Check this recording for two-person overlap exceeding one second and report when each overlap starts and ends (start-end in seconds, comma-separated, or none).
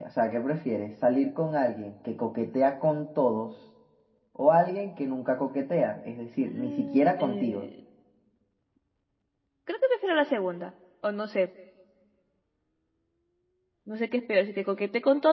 6.4-7.7